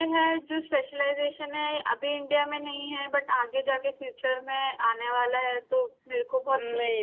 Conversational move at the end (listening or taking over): taking over